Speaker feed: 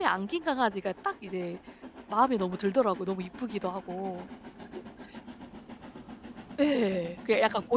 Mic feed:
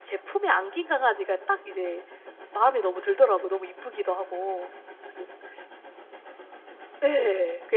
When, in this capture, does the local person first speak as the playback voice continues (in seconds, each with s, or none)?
none